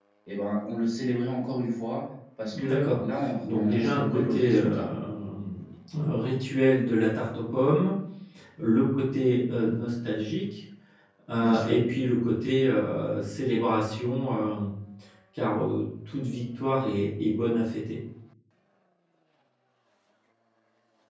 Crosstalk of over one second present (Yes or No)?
Yes